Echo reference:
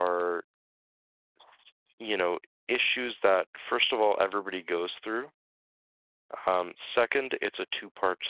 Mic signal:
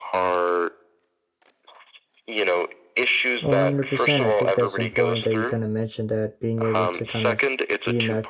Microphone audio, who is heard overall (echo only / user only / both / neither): both